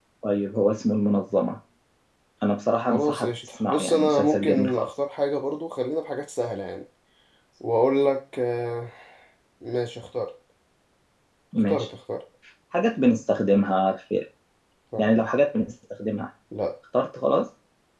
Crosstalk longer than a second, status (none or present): present